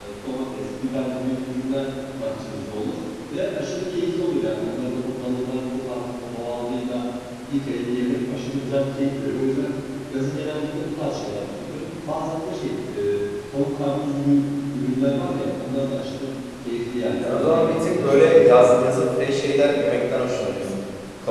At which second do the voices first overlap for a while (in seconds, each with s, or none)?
17.2 s